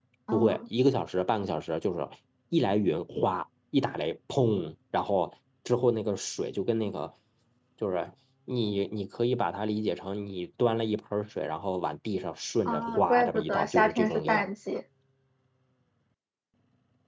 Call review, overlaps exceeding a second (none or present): present